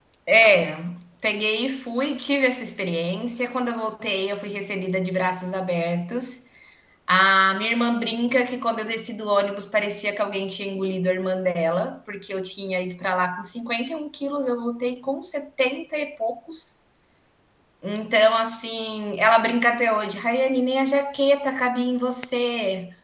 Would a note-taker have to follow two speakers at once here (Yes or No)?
No